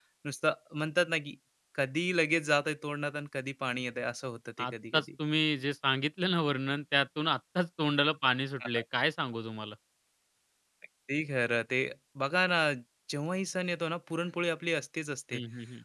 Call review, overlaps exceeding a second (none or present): none